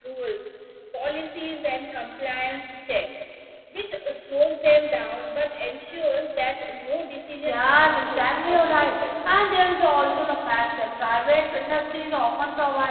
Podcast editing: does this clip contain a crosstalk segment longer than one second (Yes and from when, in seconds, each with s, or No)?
Yes, from 7.4 s